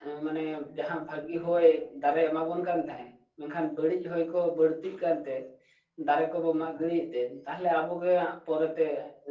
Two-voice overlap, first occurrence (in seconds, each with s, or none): none